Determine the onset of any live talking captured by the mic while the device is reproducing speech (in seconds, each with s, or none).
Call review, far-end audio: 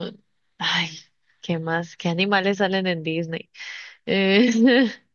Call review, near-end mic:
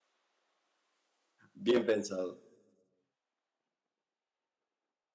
1.5 s